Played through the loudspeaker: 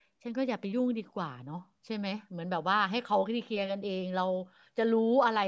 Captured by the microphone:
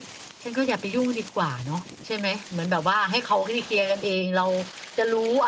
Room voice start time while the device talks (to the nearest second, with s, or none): none